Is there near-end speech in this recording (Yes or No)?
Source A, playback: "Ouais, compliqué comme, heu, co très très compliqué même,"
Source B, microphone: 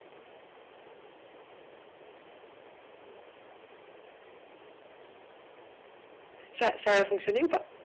Yes